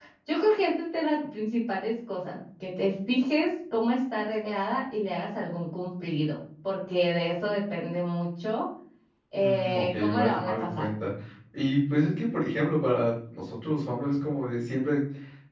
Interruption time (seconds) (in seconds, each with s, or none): 9.4 s